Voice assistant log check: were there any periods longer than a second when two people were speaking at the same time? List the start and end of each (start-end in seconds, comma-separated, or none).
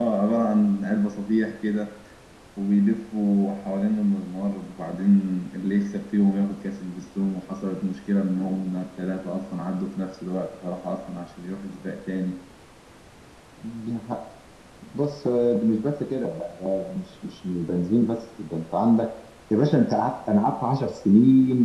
none